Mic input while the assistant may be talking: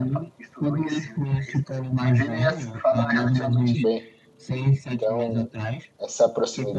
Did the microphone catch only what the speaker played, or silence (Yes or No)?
No